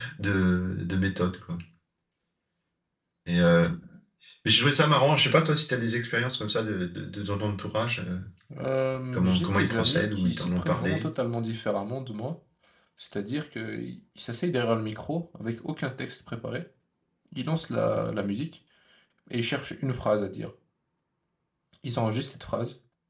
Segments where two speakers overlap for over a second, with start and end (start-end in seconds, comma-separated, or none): 9.2-11.1